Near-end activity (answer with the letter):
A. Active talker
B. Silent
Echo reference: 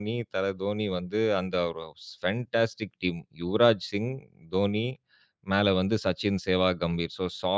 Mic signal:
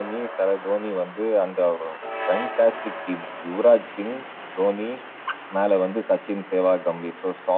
B